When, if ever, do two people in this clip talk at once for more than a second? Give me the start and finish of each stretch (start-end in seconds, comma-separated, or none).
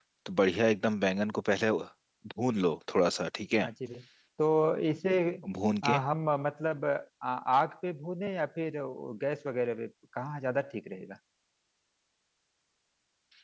none